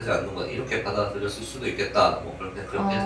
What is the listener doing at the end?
taking over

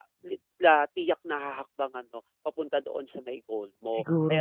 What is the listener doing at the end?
listening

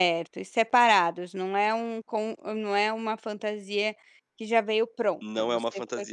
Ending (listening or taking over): taking over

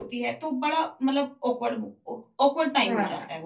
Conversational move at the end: listening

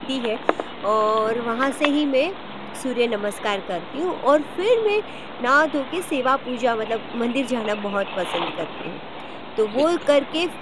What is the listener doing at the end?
listening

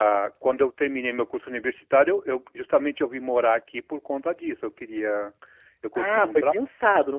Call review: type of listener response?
taking over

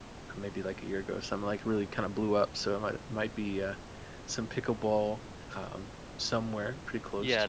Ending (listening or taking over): taking over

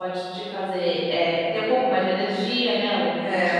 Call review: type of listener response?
taking over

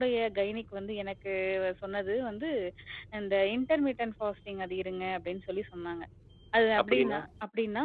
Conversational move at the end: listening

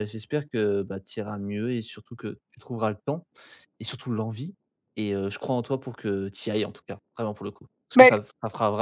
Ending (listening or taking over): listening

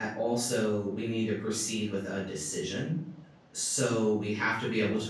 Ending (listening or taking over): listening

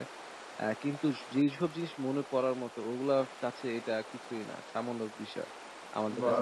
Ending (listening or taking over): listening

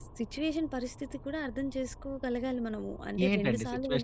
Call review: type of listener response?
taking over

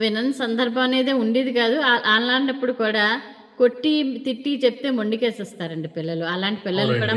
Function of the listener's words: listening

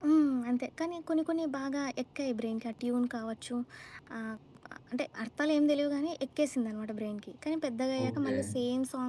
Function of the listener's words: listening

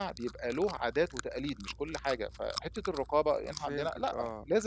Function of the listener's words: taking over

